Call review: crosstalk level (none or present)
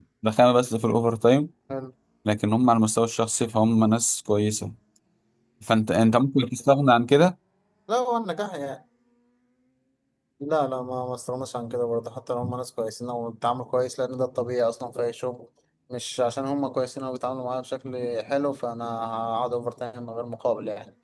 none